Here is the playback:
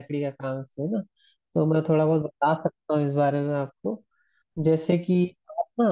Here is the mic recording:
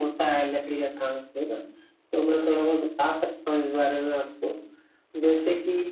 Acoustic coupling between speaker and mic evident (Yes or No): Yes